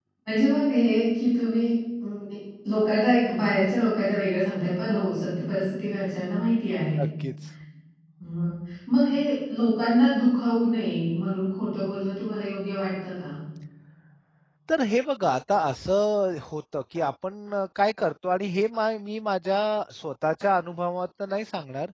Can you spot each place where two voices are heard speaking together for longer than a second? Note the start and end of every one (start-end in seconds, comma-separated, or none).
none